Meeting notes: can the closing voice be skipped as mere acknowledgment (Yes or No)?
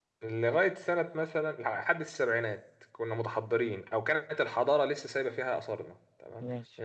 Yes